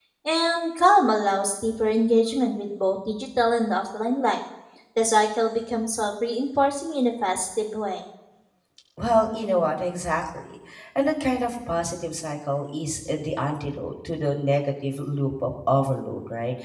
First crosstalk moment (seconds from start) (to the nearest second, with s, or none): none